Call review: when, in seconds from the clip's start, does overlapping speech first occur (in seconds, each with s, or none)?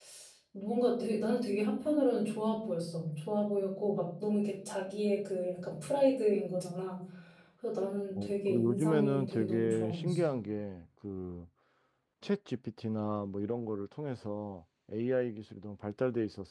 8.1 s